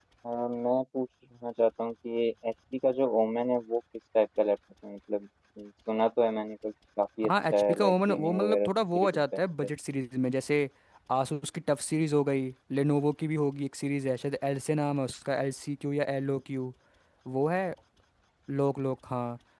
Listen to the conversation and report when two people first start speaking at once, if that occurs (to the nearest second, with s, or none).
7 s